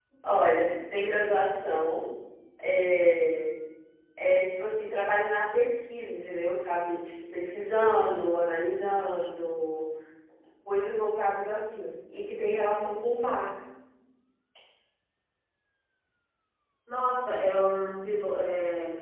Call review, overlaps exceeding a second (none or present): none